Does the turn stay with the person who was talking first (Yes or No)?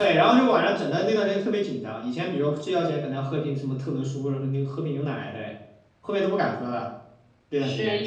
No